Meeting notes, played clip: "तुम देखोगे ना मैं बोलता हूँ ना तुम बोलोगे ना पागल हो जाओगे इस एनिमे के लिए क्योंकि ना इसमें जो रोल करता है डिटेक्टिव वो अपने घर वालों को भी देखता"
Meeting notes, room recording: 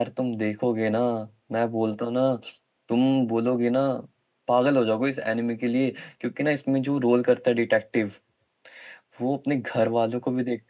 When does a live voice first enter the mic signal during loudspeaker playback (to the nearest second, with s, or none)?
none